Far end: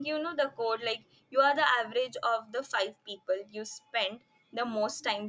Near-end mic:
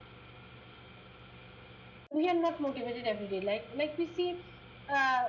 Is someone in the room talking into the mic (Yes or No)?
Yes